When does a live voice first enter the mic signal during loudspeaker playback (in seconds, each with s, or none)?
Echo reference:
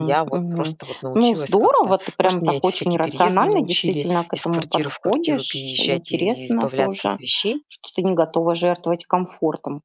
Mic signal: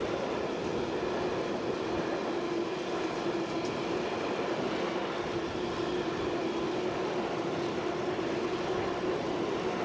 none